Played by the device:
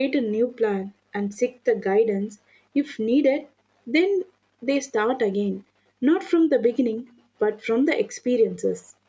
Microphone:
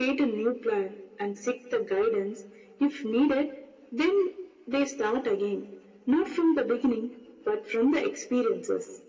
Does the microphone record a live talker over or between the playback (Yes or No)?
No